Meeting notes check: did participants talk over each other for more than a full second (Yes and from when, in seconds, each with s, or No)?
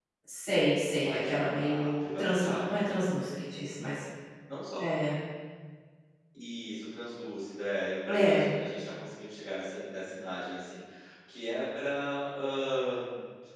Yes, from 1.0 s